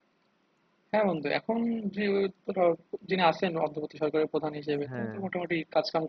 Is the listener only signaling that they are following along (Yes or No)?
Yes